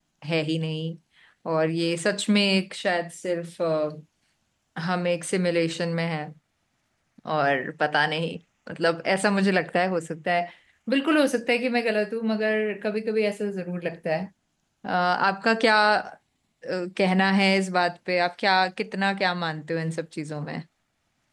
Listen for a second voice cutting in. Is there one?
No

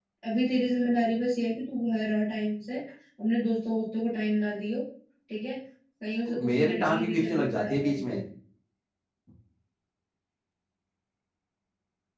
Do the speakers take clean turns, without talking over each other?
No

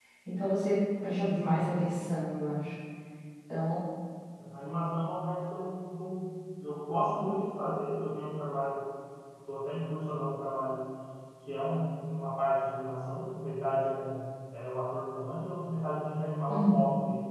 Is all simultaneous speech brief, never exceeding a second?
Yes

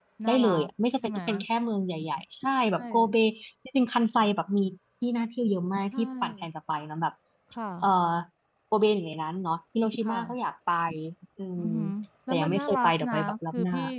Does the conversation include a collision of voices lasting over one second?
Yes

